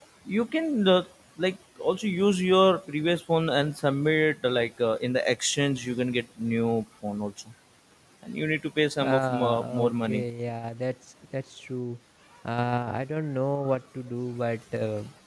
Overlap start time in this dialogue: 9.0 s

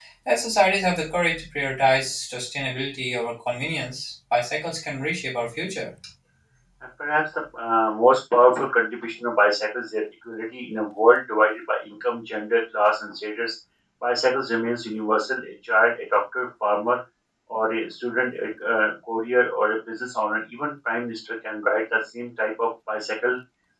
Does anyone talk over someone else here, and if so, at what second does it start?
none

